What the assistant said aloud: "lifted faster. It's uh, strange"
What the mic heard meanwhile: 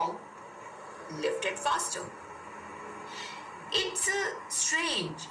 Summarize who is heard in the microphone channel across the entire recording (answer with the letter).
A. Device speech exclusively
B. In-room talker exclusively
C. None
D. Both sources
A